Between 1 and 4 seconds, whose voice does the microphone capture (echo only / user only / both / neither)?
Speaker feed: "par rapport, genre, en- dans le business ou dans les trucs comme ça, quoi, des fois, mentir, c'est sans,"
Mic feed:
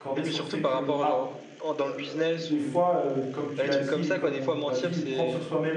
both